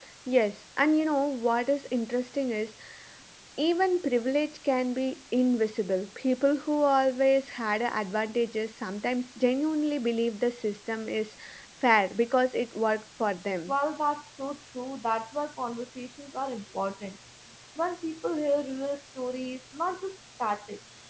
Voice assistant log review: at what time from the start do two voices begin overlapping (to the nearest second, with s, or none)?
none